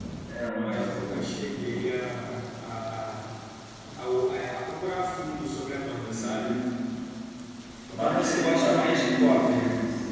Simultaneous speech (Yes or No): Yes